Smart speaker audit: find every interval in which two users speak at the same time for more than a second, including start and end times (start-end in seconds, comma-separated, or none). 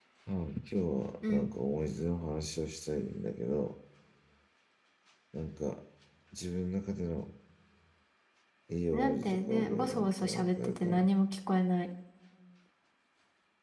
8.9-11.1